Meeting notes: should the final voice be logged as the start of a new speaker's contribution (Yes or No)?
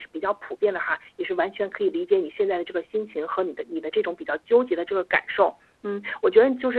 No